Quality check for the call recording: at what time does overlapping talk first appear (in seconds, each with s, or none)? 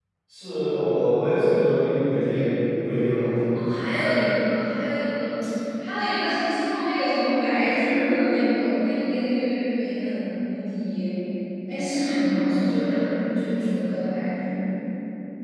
none